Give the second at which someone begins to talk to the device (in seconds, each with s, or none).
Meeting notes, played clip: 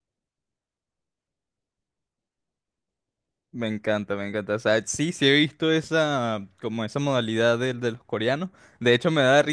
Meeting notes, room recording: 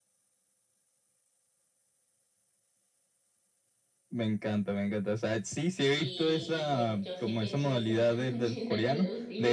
5.9 s